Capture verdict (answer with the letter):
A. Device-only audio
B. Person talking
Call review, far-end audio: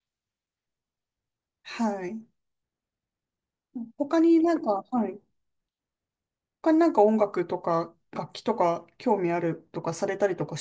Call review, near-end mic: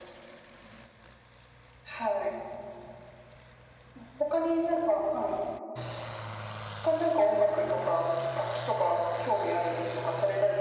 A